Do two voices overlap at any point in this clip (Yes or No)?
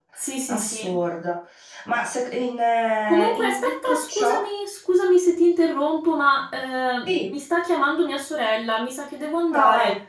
Yes